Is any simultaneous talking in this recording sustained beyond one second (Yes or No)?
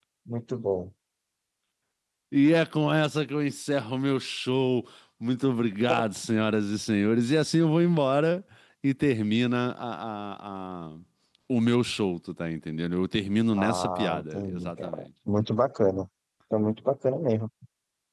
Yes